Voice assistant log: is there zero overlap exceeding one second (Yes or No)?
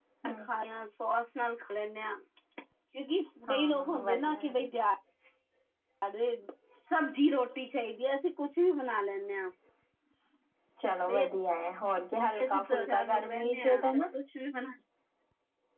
No